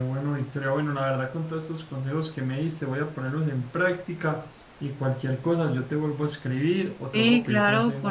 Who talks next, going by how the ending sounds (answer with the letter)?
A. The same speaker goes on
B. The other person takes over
B